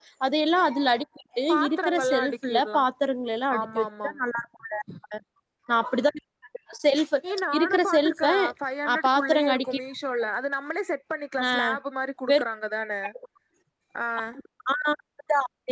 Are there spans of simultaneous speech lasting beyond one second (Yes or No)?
Yes